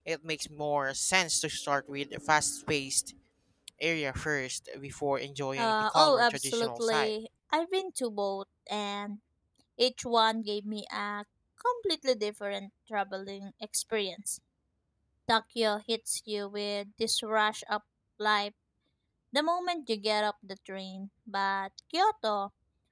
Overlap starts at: 5.6 s

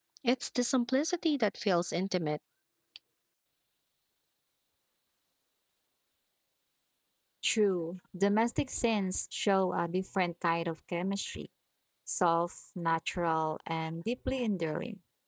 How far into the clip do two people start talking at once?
none

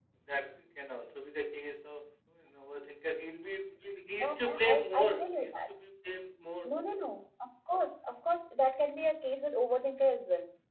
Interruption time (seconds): 4.1 s

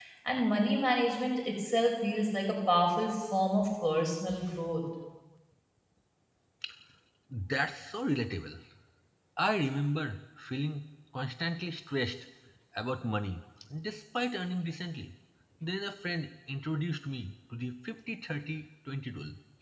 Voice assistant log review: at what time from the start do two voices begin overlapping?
none

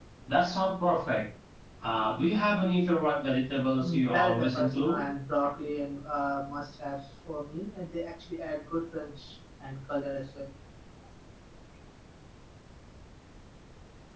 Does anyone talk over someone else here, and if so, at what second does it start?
3.8 s

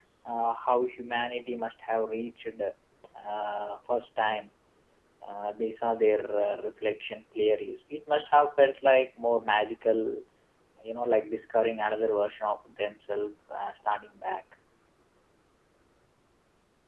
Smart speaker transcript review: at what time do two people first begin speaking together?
none

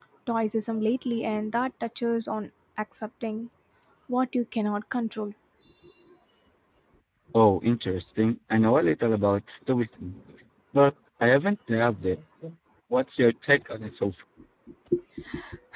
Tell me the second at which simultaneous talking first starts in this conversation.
none

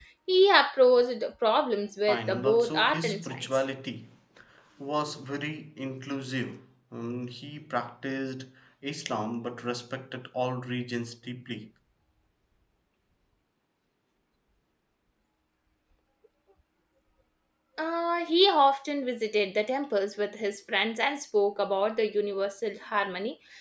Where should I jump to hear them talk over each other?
2.1 s

